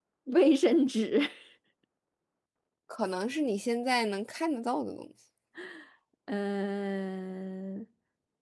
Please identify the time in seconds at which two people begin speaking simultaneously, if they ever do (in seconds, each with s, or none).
none